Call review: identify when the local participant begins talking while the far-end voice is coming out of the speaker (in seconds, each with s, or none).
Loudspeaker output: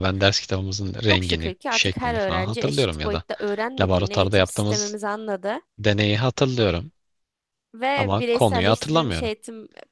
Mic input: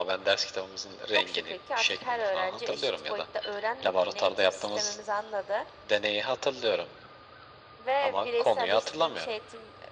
none